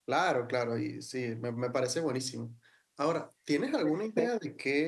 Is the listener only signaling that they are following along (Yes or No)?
Yes